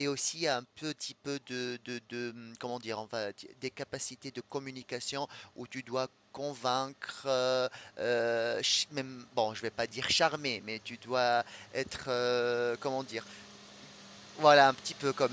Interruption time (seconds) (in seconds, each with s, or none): none